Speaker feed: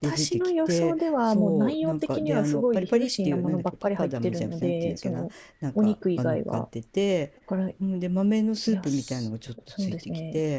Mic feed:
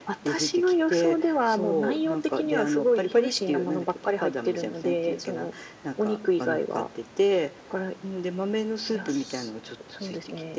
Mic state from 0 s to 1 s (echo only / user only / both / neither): echo only